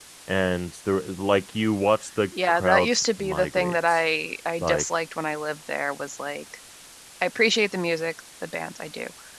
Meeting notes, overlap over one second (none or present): present